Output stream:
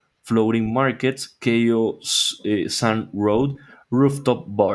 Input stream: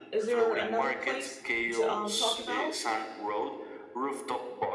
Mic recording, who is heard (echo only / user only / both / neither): both